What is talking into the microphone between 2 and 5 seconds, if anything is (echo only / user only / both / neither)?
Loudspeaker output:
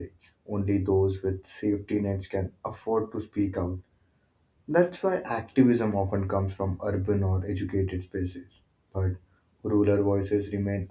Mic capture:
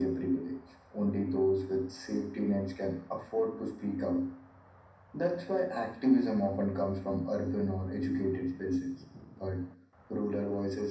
echo only